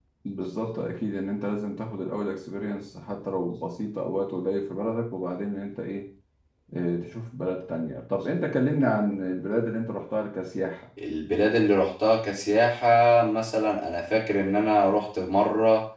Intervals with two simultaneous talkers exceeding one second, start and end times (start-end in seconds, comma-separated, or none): none